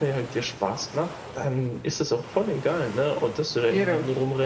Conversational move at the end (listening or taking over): listening